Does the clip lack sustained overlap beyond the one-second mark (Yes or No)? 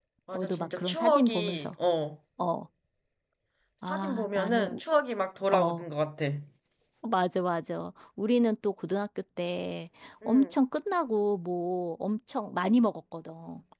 No